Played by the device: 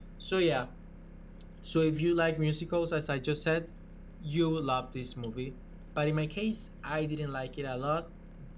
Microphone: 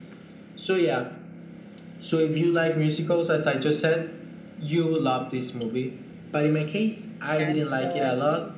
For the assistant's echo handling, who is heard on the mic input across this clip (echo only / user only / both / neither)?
both